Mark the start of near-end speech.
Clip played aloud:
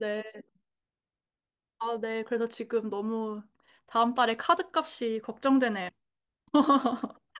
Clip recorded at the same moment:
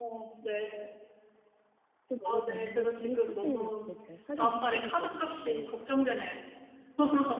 2 s

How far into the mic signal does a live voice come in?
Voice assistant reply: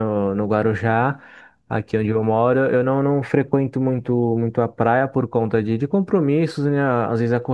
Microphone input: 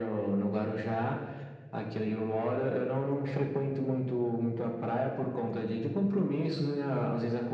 none

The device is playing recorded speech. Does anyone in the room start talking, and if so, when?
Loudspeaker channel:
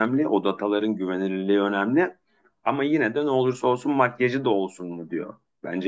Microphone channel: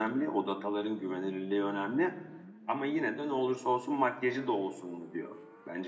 none

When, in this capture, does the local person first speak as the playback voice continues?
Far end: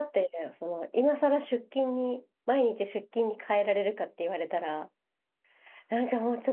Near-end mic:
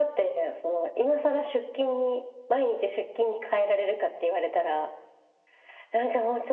none

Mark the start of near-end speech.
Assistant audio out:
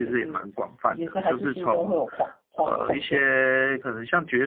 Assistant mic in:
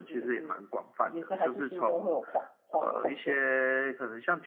none

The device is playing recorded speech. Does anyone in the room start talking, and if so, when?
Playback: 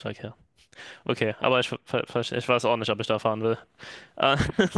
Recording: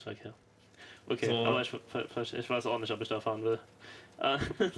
1 s

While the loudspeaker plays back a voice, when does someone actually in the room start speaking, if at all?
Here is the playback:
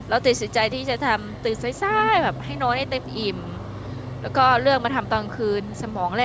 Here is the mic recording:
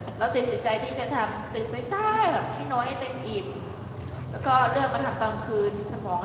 none

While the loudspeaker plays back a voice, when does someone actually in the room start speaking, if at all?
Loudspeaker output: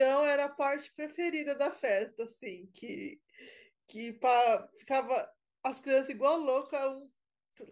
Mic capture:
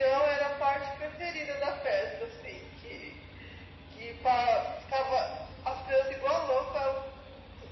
none

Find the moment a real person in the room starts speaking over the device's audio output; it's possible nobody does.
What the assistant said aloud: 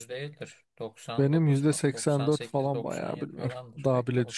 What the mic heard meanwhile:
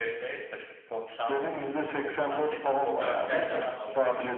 3 s

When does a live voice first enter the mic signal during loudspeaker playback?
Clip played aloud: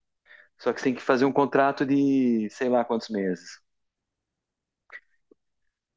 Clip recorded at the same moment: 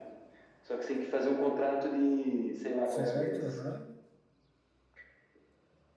3 s

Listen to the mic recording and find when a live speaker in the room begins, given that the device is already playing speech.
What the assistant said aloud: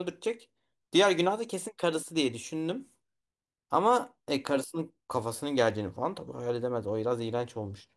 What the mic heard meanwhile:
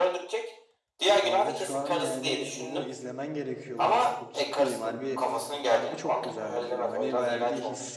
1 s

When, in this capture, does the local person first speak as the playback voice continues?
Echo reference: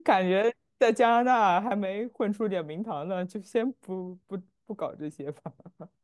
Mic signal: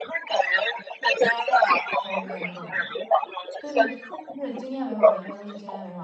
2 s

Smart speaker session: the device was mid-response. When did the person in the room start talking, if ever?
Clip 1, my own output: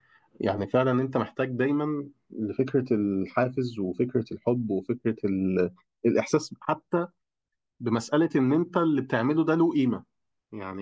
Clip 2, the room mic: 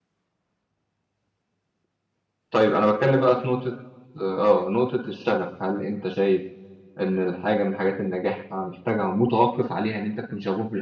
3 s

